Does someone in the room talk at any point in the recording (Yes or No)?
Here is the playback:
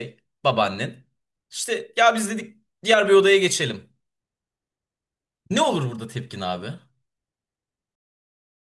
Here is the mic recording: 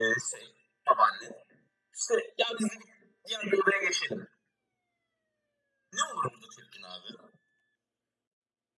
No